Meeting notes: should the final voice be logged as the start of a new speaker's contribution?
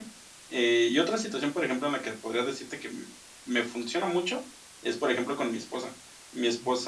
No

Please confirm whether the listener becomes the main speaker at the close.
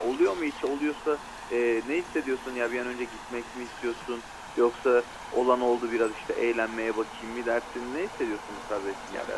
Yes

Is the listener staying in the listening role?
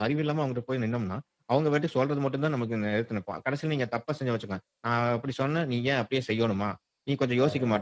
Yes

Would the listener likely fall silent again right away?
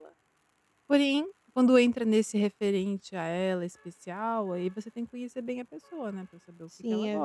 No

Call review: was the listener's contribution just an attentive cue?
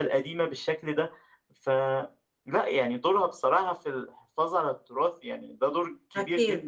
No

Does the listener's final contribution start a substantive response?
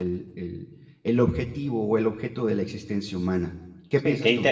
Yes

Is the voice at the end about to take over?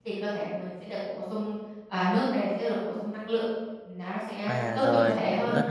Yes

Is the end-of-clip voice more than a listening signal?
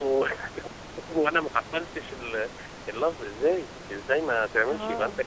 No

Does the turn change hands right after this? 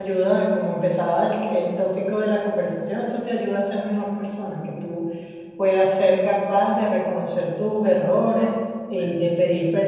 No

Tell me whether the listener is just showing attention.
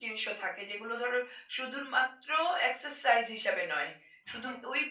Yes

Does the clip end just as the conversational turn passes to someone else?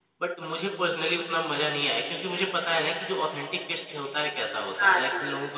Yes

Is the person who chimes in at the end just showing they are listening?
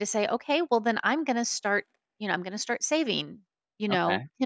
Yes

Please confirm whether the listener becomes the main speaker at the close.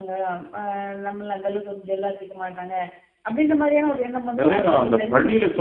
Yes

